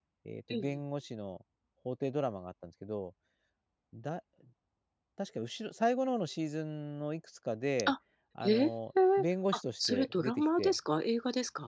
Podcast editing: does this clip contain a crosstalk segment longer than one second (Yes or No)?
Yes